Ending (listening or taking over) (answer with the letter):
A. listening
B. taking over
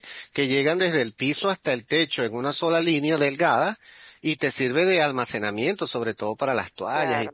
B